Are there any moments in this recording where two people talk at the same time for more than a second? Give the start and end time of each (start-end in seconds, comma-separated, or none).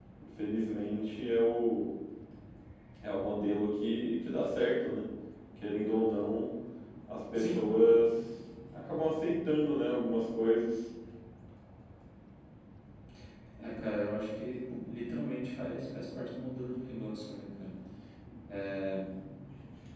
none